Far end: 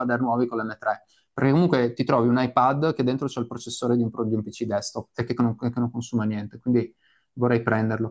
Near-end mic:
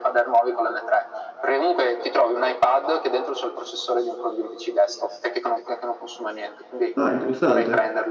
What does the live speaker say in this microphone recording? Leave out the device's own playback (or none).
Ah, interessante.